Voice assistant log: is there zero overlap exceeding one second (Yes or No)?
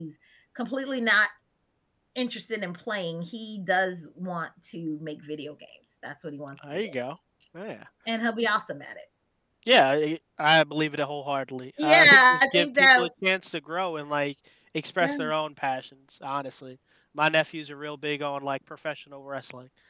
No